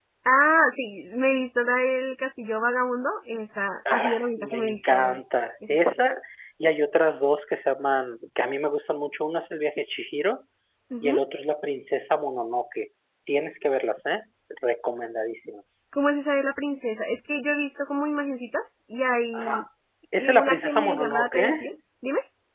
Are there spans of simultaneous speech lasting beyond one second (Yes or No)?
Yes